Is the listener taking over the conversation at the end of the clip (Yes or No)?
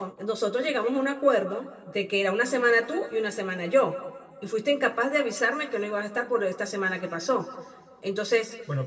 No